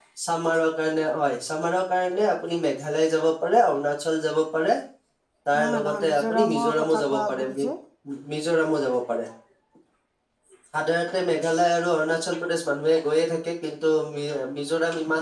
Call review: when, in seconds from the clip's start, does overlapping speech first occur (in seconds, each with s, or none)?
5.6 s